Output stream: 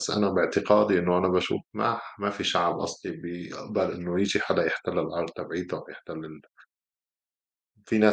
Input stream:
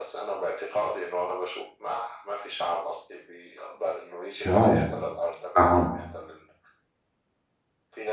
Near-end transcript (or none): واو! نعم،